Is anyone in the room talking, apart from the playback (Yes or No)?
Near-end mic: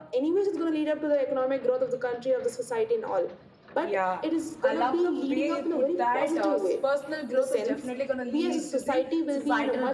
Yes